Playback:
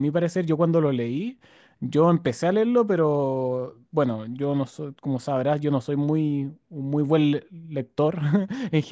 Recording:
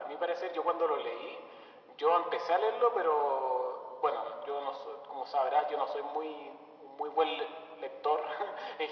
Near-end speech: none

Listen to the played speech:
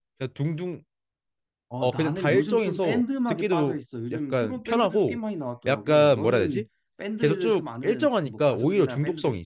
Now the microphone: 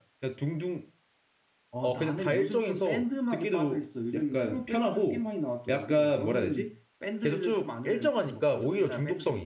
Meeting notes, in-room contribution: none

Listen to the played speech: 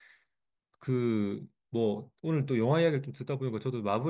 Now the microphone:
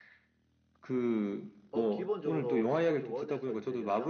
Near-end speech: present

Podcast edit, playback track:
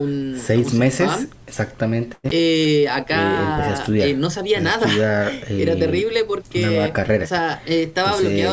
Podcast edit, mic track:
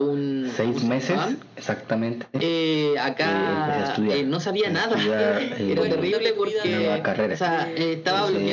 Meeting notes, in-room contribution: present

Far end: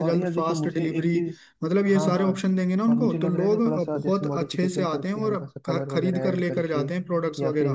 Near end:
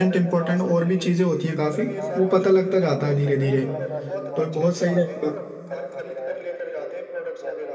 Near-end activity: present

